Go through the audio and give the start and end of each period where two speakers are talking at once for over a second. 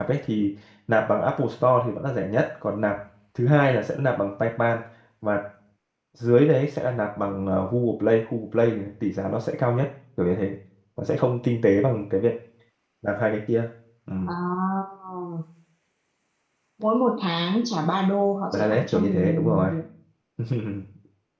18.5-19.7

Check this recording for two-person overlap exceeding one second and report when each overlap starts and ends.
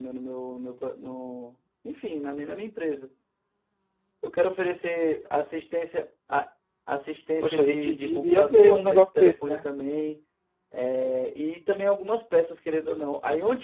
7.4-9.7

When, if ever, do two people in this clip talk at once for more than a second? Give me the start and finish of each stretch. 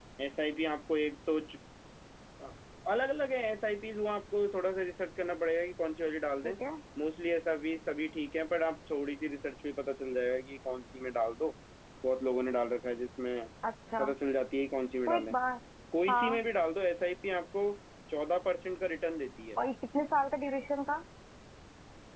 none

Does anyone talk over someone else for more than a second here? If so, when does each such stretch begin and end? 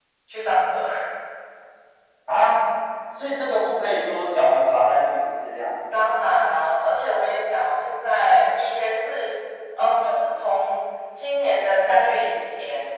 none

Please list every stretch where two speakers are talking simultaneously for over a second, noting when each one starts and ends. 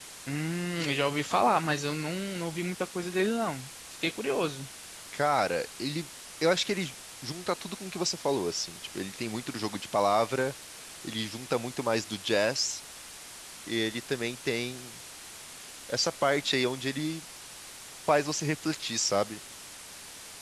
none

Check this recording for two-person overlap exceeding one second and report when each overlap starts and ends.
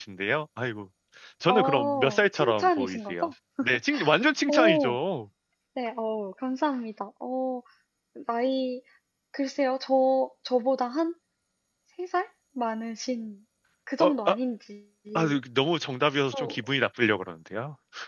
1.5-3.3

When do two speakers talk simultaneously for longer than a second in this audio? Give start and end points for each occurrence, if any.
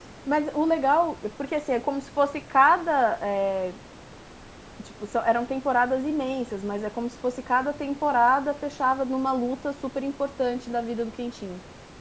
none

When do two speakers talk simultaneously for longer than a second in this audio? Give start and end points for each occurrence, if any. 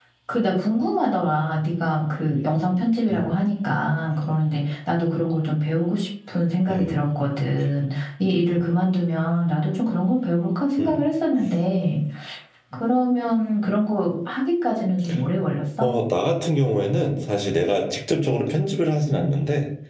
none

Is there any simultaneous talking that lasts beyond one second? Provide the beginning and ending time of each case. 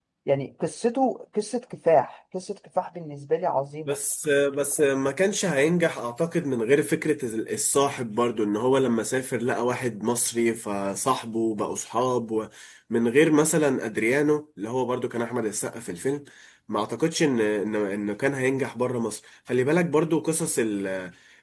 none

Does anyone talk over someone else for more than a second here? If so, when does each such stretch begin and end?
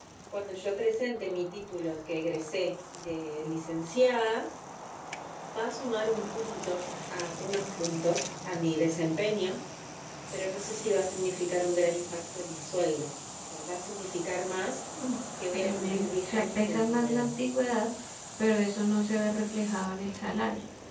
15.5-17.3

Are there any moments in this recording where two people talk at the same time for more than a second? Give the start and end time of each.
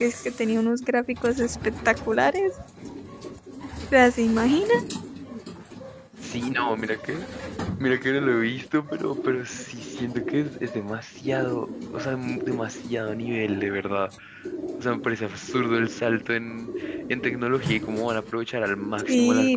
none

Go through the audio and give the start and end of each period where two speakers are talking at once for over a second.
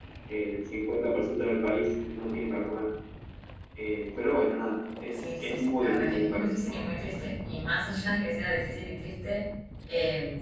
5.1-6.5

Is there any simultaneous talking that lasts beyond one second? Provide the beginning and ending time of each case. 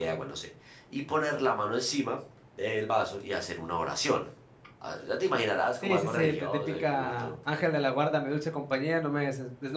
5.8-7.3

